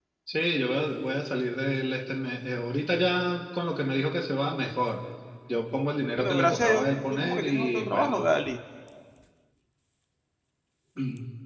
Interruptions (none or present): present